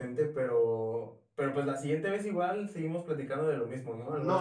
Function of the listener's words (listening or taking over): taking over